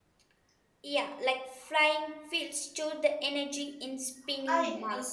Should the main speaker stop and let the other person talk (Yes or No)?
Yes